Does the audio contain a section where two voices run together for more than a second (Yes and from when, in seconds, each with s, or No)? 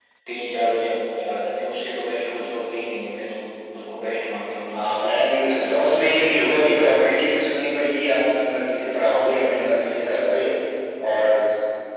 No